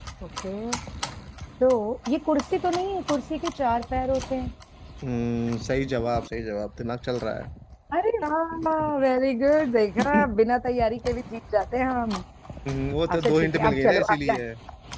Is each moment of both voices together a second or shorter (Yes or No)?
No